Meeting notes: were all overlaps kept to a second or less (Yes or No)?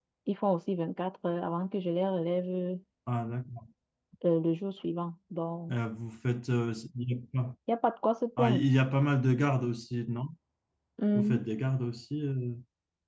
Yes